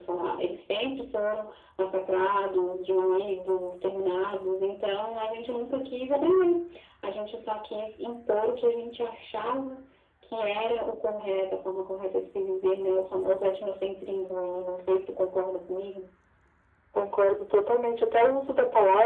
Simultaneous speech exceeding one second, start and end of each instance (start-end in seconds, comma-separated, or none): none